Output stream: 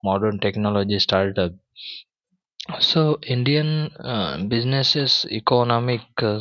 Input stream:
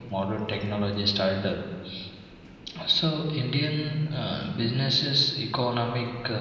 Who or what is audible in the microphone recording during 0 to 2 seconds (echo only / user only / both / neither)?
echo only